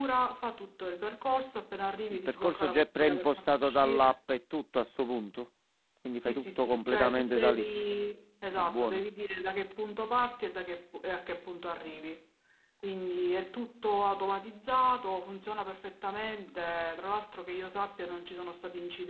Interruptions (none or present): present